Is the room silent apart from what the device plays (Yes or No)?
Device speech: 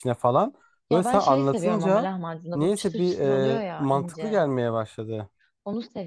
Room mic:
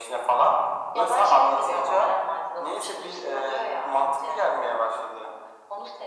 Yes